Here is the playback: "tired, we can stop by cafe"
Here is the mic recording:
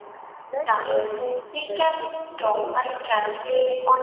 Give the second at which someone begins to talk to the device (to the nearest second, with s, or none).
0 s